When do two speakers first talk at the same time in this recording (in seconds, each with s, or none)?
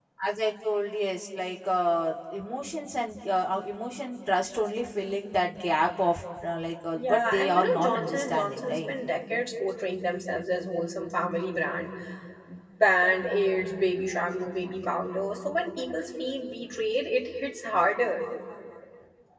6.9 s